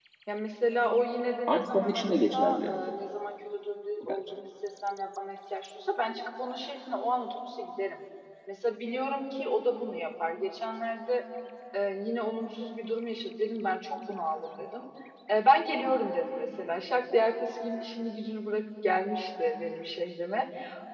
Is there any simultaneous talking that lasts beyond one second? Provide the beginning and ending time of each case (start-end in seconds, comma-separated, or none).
1.5-2.7